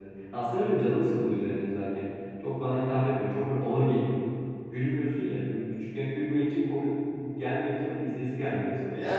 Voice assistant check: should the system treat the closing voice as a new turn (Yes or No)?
Yes